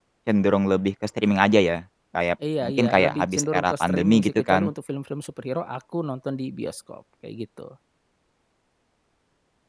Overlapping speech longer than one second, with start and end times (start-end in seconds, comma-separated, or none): 2.6-4.7